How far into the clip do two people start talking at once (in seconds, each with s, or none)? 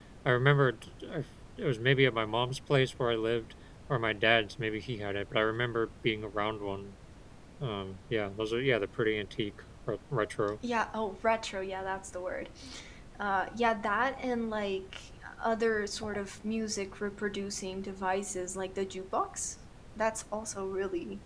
none